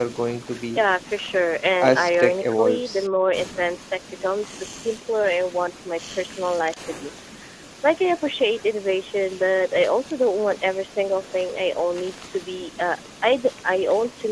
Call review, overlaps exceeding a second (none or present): present